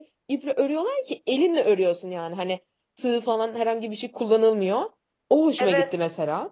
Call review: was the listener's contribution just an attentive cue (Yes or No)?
No